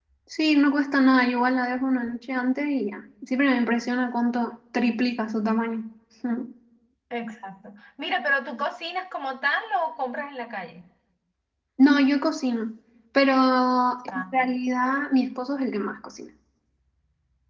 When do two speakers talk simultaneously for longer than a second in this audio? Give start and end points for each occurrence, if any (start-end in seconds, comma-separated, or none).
none